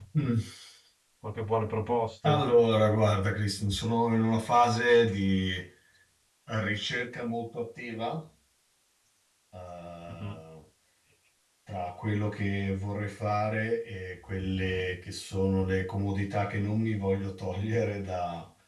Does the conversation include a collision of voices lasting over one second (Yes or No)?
No